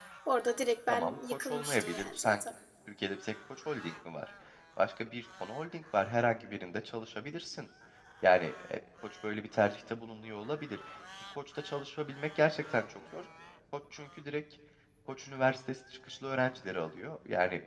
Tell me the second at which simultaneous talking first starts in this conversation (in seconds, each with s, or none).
0.9 s